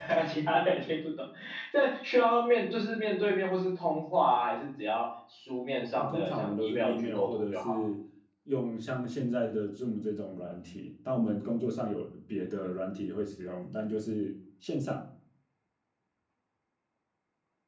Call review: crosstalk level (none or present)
present